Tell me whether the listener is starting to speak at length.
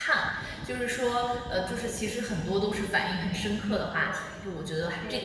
Yes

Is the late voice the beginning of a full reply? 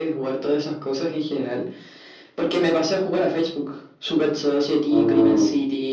No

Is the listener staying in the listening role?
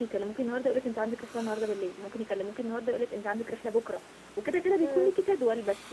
Yes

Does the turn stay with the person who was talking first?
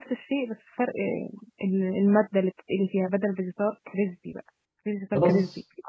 No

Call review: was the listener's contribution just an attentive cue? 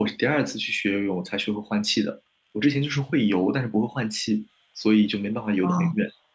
No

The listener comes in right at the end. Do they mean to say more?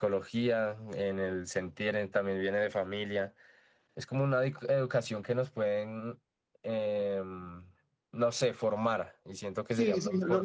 Yes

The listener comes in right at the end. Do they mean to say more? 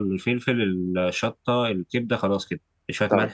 No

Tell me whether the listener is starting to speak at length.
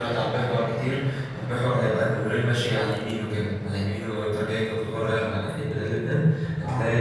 No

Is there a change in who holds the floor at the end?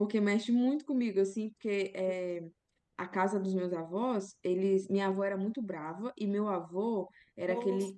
No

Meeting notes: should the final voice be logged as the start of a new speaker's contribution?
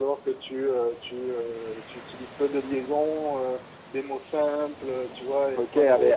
Yes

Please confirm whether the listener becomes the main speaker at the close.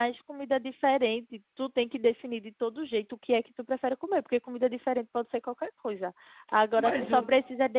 No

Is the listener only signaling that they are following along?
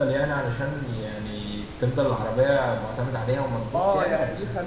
No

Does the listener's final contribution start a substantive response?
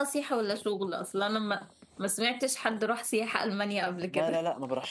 Yes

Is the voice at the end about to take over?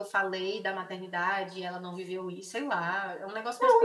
Yes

